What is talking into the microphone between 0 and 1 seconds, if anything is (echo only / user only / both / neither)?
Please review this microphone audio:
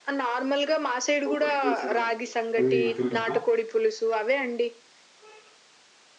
echo only